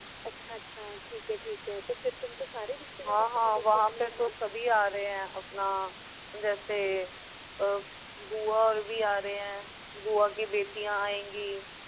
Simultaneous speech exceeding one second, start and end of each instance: 3.0-4.3

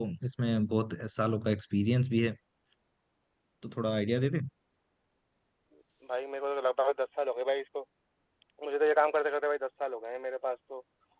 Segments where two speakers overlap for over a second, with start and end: none

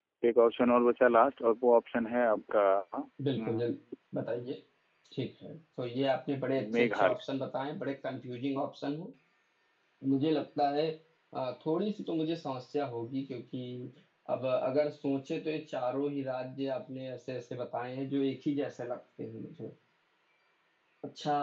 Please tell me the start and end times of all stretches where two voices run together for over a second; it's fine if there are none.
none

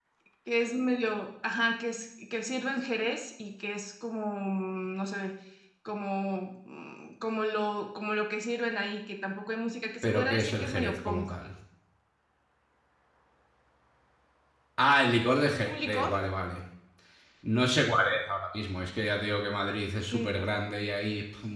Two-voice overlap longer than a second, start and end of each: 10.0-11.3

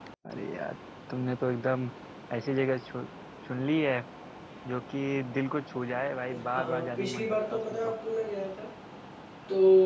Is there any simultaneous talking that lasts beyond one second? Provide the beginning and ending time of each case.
6.4-7.9

